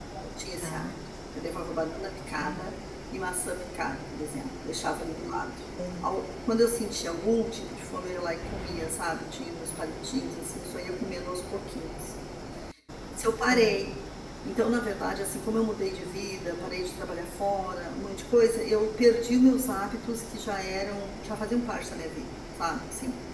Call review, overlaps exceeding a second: none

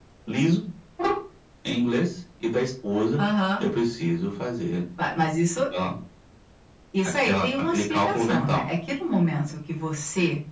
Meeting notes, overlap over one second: present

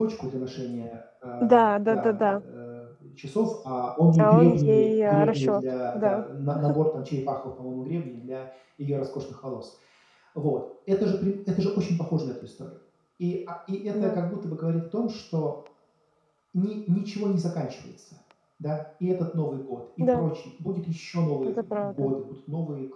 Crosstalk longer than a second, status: present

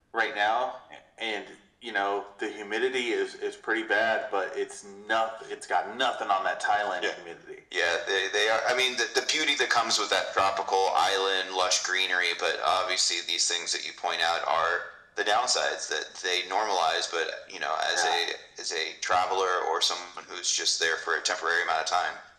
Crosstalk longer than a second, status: none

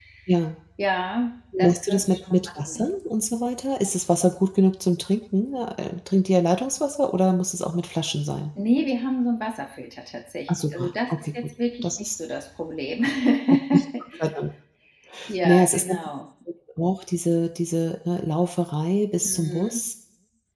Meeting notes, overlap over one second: present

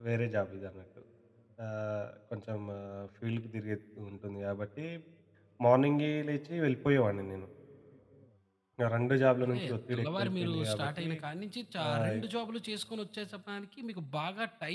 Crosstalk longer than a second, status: present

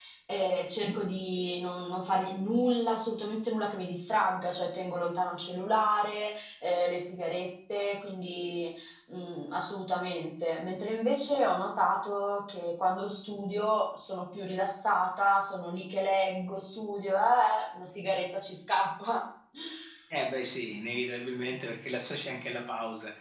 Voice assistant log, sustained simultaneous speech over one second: none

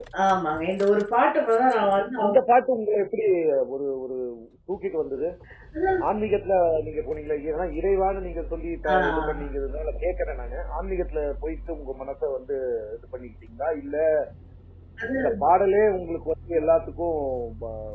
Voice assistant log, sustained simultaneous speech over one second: none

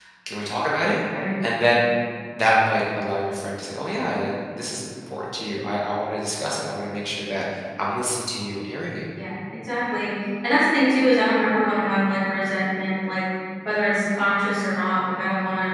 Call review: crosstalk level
none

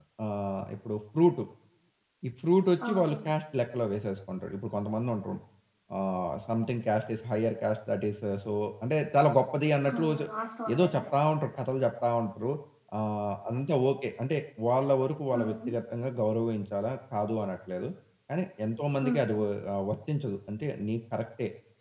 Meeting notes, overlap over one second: none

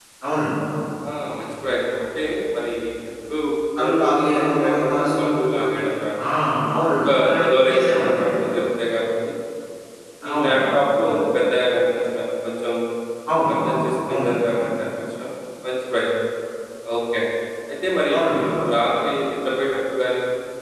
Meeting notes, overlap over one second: present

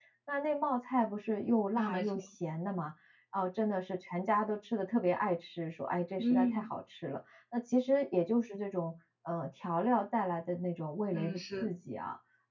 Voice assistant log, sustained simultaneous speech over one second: none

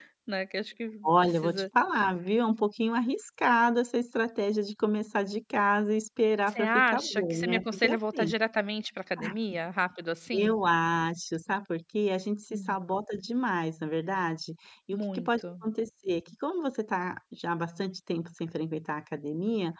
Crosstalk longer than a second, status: present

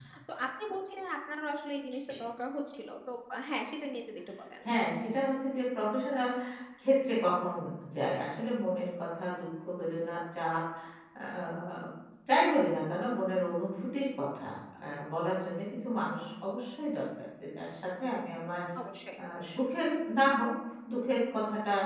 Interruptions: none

